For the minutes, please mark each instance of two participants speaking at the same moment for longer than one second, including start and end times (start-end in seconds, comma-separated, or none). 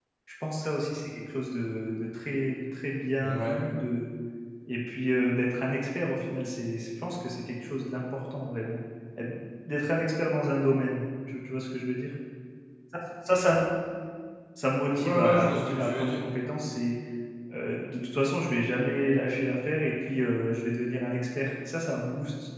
14.9-16.2